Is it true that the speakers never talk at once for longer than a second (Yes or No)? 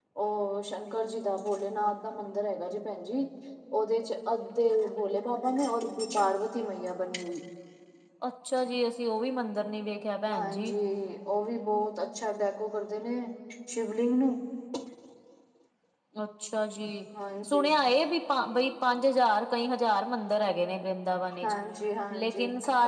Yes